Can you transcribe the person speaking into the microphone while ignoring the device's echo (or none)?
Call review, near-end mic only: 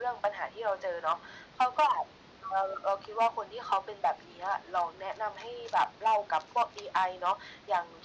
none